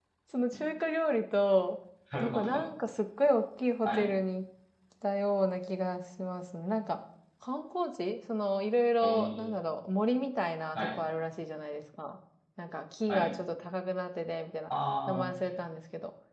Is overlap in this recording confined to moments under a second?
Yes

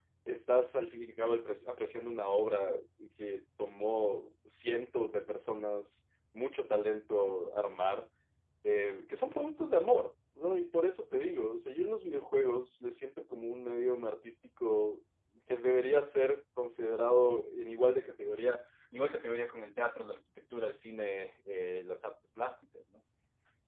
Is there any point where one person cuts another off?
No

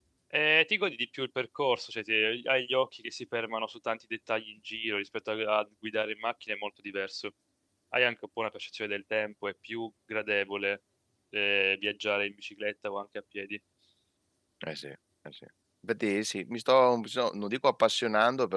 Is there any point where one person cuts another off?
No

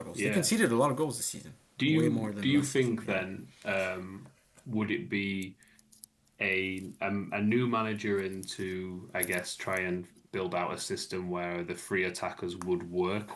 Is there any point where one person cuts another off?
Yes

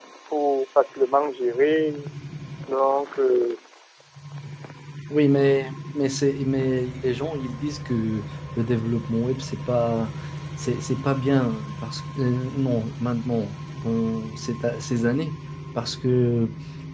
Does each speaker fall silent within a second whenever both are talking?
Yes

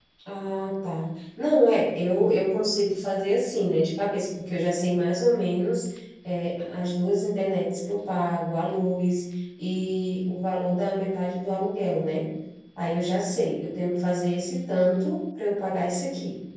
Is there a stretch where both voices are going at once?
No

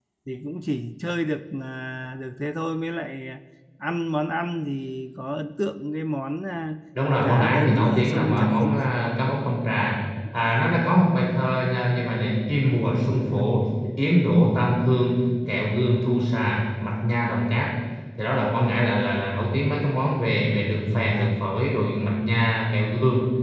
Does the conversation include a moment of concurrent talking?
Yes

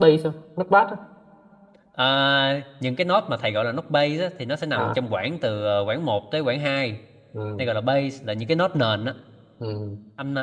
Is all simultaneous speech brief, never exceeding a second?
Yes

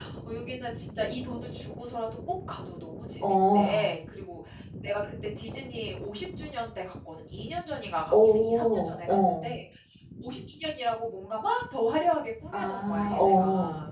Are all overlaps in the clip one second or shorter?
No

